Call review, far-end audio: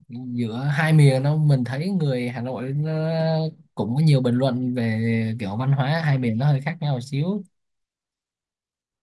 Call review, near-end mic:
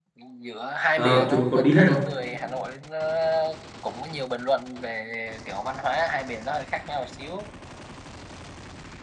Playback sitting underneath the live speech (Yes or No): Yes